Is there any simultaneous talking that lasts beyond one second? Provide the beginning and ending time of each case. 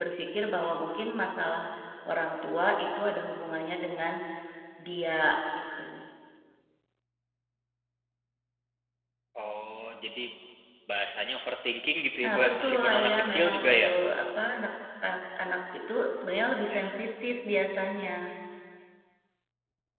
12.2-13.9

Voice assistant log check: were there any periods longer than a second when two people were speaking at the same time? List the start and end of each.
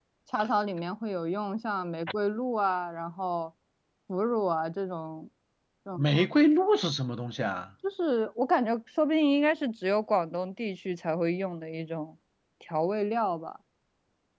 none

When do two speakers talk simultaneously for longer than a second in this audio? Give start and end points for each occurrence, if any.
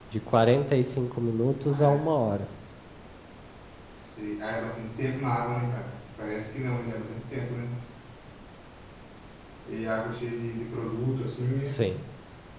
none

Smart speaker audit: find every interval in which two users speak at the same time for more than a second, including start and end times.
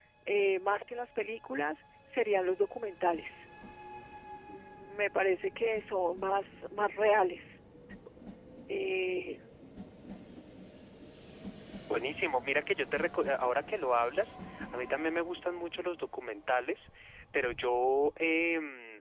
none

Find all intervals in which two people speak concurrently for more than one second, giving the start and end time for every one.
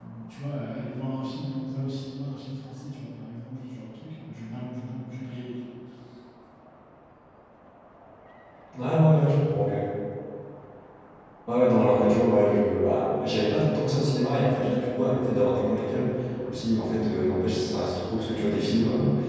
none

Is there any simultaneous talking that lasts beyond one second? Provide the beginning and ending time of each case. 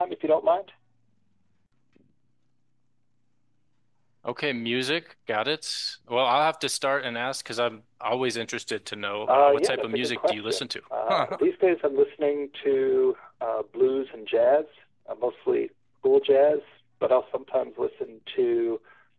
9.3-10.7

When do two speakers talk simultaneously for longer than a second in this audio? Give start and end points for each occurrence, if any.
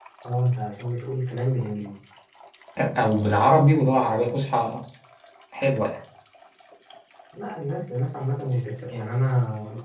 none

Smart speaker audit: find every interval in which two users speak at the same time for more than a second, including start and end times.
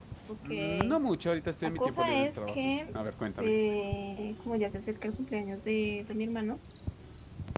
1.6-3.0

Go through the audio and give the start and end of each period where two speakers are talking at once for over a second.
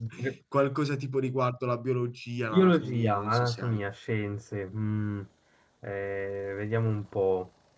2.4-3.8

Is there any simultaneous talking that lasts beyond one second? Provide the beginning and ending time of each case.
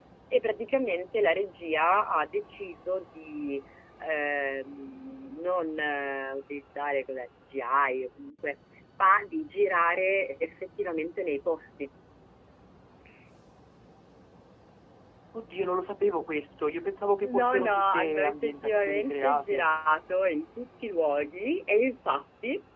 17.2-19.6

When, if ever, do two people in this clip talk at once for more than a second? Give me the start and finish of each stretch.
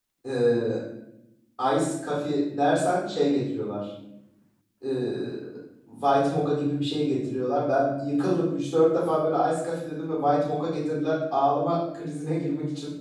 none

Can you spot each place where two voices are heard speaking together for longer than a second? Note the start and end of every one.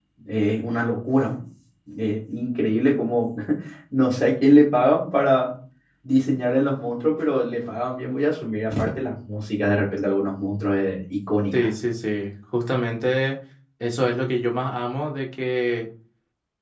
none

